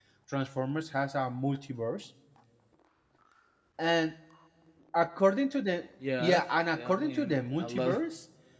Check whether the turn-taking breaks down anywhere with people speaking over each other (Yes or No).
Yes